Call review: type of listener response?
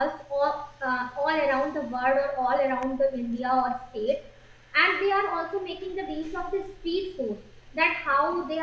listening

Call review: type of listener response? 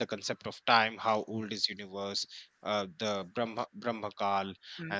listening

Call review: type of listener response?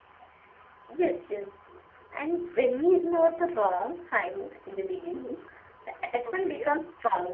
listening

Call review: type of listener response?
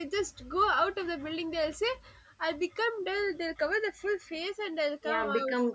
taking over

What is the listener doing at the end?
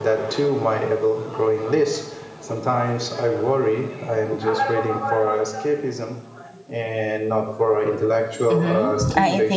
taking over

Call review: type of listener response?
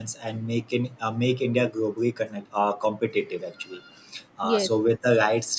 listening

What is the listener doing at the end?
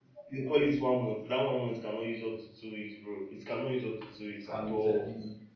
taking over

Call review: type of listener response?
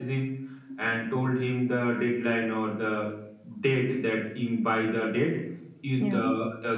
listening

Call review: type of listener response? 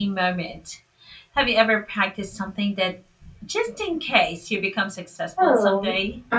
taking over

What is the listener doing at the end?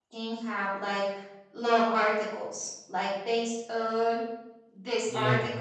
listening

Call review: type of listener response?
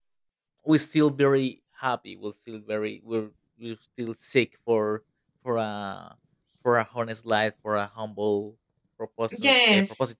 listening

